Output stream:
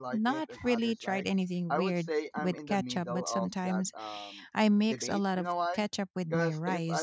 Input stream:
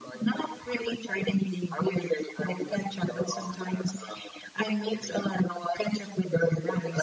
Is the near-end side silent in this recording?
Yes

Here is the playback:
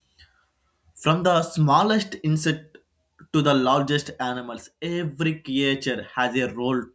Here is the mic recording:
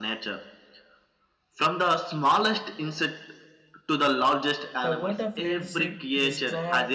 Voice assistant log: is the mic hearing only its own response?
No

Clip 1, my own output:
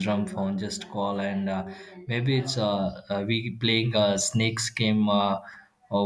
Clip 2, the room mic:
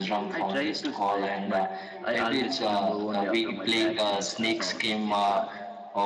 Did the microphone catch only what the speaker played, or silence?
No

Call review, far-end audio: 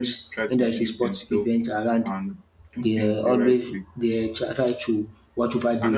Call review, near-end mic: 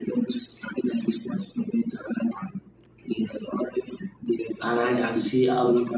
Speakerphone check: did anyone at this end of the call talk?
Yes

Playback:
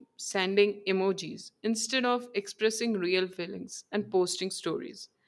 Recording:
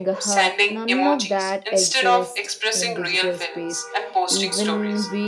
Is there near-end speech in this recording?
Yes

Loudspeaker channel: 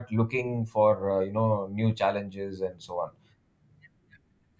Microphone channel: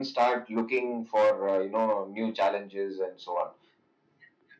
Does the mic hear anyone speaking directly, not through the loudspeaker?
No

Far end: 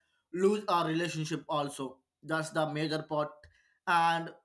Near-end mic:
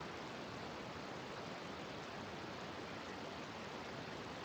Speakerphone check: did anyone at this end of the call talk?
No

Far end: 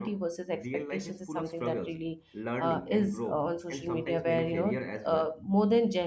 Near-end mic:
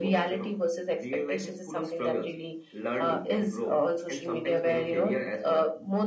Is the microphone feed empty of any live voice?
Yes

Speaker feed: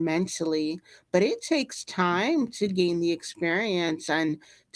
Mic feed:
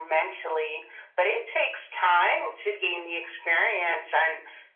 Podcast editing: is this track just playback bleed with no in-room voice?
Yes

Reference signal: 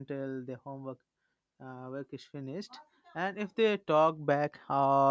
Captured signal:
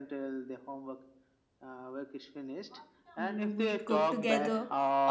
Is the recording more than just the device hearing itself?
Yes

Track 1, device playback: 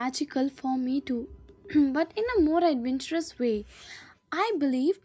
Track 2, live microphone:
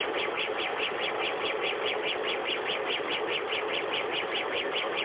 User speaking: No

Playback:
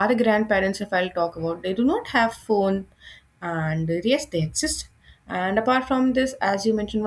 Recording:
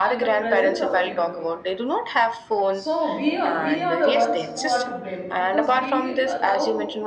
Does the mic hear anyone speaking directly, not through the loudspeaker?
Yes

